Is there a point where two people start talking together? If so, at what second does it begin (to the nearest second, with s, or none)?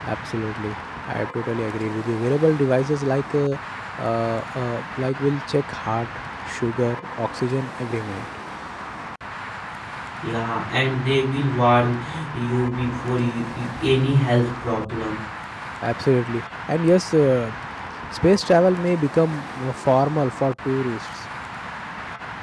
none